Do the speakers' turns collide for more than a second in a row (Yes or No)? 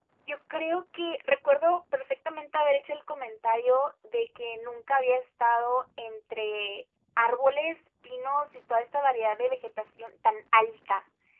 No